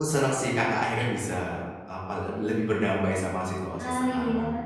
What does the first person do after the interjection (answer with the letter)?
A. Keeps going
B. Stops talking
B